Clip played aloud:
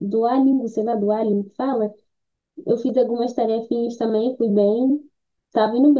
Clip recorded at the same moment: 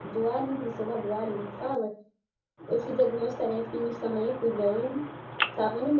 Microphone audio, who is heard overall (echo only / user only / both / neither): echo only